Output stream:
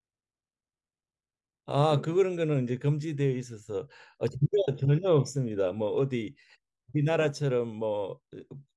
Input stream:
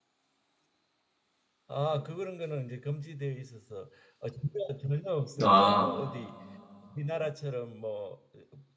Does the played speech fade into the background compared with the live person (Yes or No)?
Yes